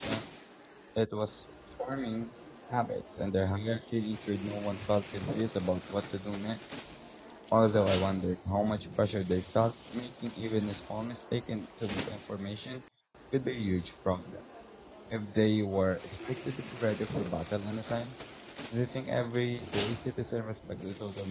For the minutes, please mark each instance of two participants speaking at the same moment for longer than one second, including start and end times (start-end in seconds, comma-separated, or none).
none